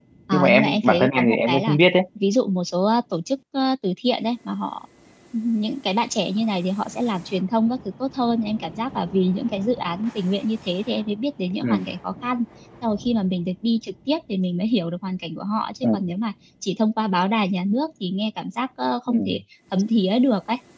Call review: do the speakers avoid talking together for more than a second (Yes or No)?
No